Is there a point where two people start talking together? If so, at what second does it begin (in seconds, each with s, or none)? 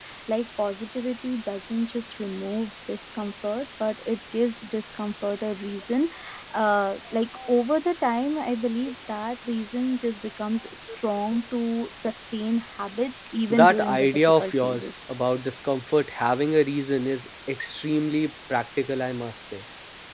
13.5 s